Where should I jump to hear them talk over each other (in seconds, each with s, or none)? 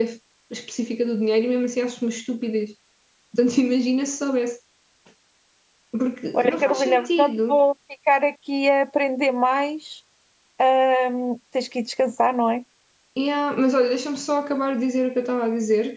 6.3 s